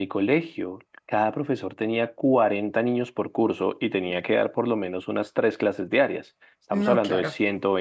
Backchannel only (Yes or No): Yes